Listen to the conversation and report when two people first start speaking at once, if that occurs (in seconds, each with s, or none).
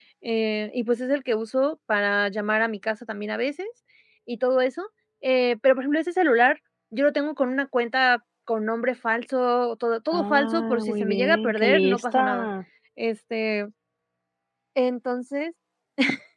10.1 s